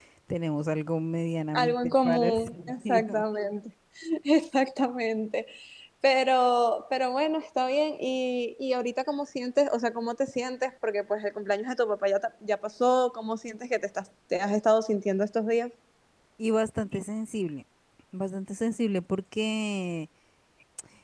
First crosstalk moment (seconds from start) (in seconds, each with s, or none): 1.5 s